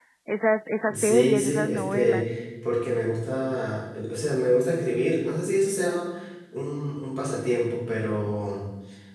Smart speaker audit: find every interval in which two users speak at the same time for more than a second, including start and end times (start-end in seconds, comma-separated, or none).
0.9-2.2